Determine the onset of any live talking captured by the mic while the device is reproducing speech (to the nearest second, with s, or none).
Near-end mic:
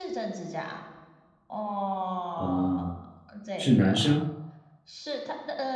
2 s